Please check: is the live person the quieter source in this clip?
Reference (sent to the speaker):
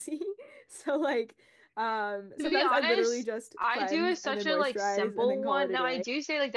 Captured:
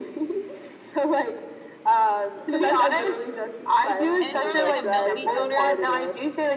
Yes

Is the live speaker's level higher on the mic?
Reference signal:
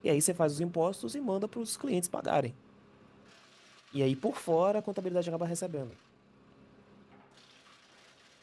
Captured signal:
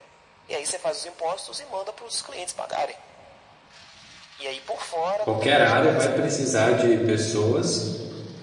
Yes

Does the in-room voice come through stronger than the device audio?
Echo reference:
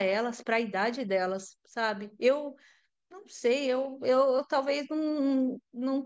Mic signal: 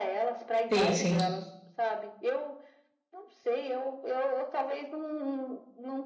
Yes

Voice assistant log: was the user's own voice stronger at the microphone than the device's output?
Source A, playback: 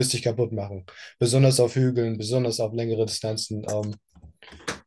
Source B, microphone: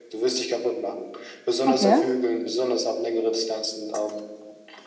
Yes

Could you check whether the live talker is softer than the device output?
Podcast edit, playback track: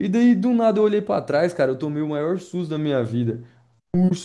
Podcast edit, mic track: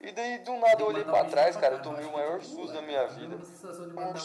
Yes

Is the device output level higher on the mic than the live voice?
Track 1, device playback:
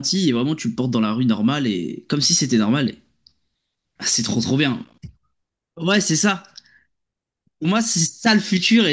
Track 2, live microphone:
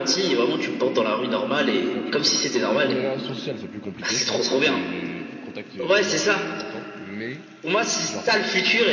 Yes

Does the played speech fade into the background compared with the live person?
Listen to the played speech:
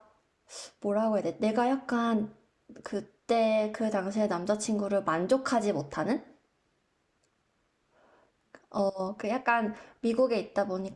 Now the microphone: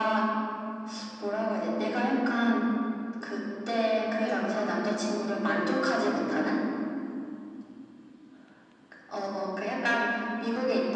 No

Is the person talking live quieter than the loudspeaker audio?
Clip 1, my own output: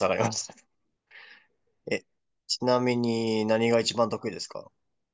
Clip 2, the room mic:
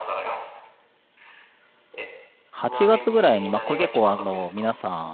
No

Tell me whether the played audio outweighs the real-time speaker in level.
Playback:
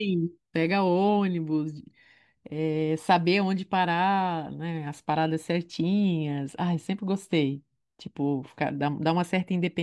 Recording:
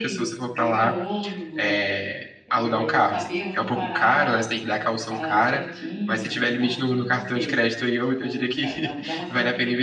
No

